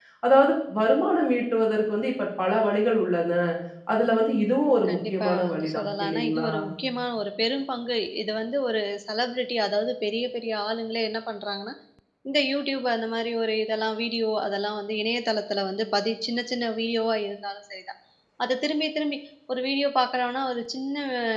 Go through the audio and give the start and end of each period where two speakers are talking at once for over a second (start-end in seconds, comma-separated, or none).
4.9-6.5